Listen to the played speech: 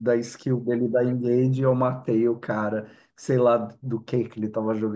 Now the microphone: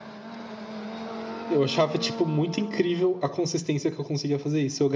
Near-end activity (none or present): present